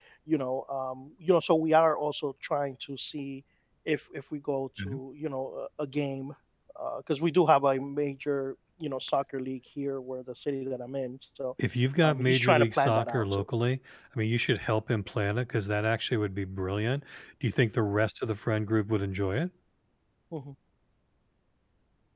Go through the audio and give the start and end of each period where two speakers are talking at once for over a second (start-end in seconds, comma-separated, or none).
12.0-13.4